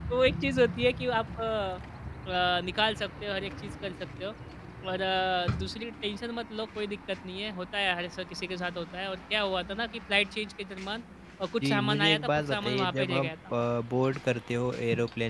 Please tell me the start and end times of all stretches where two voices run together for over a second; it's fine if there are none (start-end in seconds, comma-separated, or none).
11.6-13.3